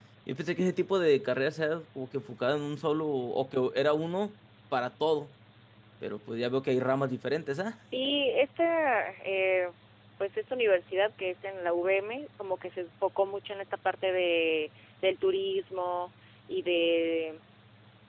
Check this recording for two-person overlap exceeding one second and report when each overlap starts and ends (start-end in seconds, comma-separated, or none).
none